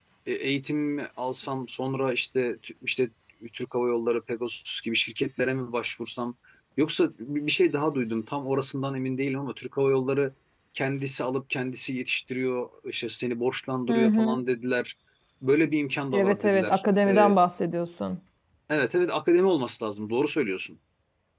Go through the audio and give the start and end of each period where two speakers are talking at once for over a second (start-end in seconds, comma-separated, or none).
16.1-17.4